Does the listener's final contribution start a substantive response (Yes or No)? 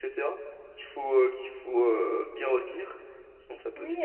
Yes